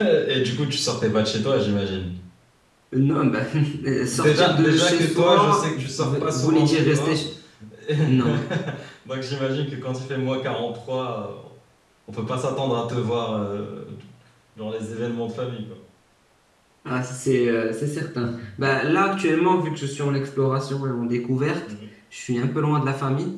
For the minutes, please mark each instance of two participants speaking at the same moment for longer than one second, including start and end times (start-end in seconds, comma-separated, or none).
4.1-7.2